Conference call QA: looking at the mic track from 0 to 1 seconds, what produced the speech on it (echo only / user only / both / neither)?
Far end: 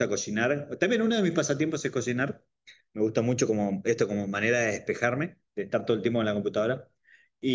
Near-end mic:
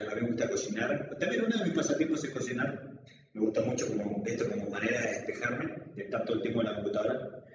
echo only